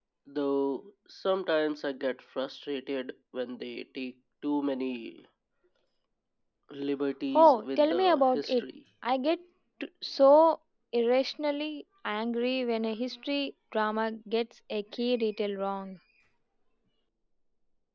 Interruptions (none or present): present